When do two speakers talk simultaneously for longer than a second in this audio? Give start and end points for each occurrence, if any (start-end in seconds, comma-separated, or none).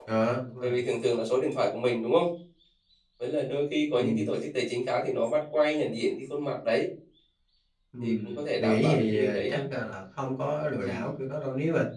8.0-9.6